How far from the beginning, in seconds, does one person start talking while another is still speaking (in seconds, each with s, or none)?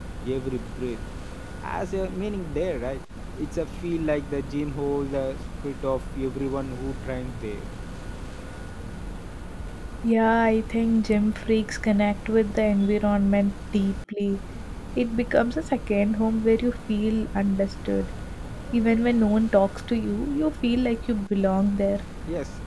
none